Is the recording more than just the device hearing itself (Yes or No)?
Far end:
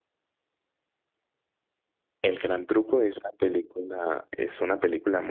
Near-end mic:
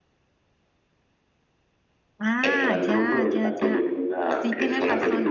Yes